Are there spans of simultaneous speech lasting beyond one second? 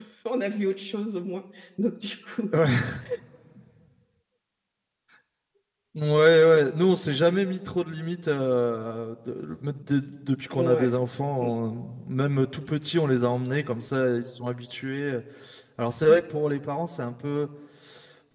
No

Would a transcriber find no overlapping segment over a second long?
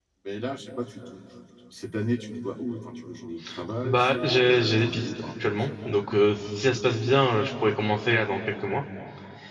No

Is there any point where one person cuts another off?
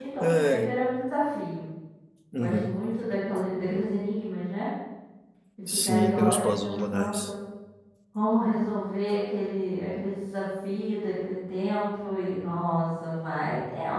Yes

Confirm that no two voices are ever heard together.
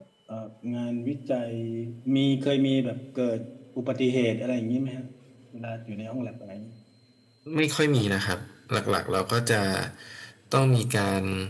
Yes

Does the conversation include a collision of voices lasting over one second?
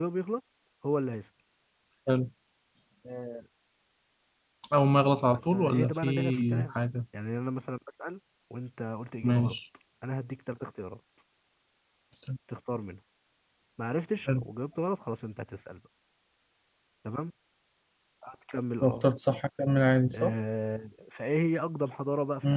Yes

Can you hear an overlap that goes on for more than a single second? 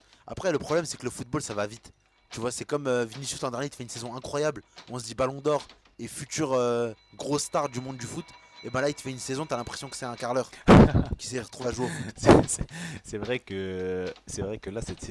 No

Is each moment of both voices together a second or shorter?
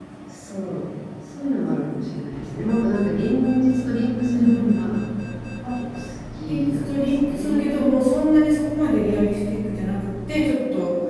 No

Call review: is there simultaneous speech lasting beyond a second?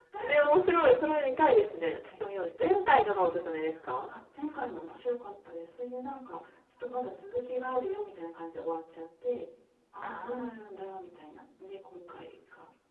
No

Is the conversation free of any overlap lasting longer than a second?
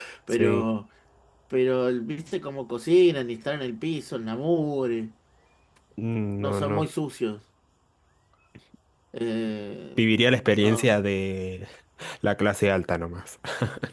Yes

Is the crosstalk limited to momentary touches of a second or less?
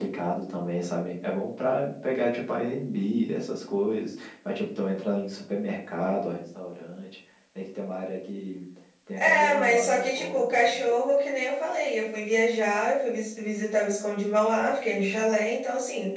No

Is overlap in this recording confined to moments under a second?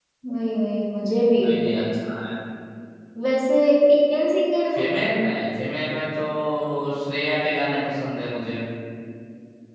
Yes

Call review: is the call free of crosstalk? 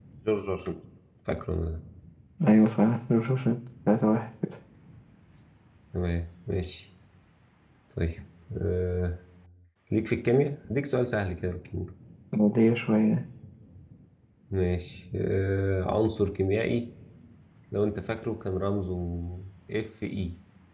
Yes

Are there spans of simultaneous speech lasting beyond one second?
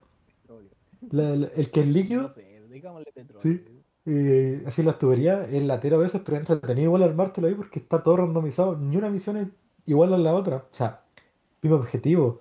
No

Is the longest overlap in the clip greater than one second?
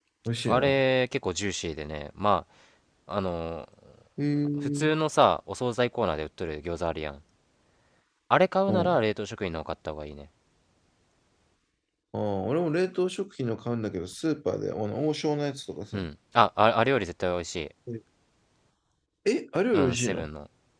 No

